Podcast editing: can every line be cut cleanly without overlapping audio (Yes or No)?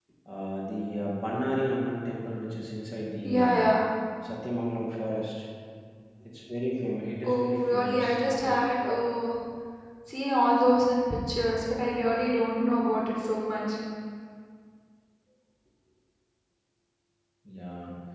No